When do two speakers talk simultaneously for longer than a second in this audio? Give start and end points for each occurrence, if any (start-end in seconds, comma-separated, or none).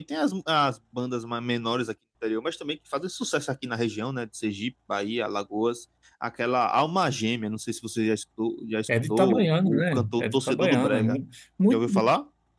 9.1-11.2